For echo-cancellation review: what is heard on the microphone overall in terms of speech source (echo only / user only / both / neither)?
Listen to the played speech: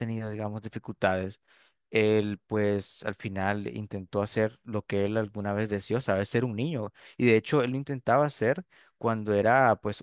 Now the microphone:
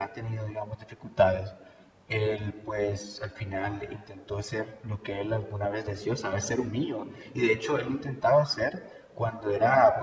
echo only